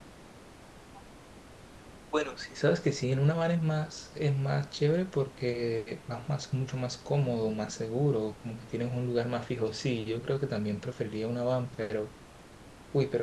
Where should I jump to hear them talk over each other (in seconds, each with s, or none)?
none